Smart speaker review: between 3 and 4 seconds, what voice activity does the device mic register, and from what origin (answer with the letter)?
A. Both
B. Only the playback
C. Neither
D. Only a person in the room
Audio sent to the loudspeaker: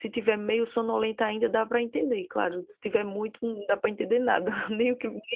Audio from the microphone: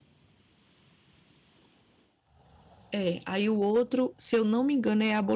D